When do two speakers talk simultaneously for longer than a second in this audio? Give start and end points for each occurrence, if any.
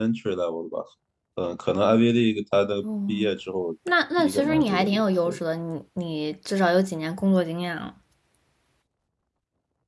4.2-5.4

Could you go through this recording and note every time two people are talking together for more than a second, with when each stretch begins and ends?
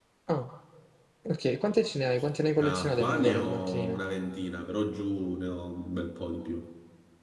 2.6-4.0

